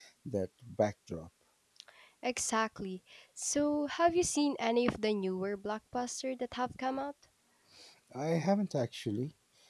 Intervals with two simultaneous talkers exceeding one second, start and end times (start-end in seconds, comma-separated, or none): none